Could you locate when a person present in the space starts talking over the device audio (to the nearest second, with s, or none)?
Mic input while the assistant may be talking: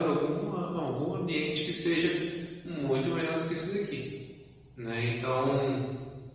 none